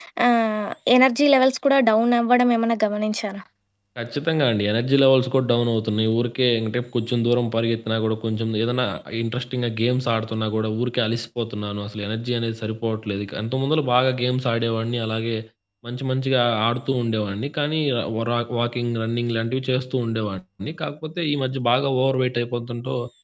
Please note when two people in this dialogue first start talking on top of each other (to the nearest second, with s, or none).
none